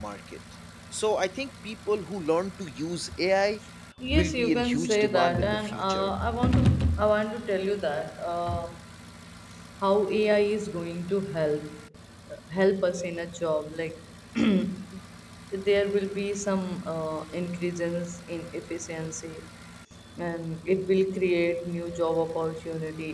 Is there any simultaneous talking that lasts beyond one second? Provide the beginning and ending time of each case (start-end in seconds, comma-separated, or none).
4.1-6.1